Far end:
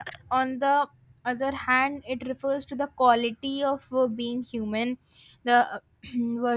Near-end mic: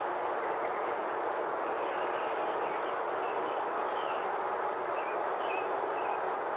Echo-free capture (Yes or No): Yes